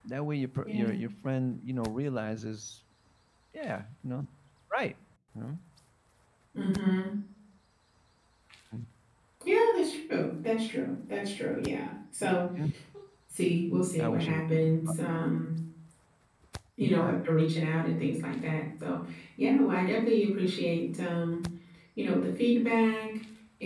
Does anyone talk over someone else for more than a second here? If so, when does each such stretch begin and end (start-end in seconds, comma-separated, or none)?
none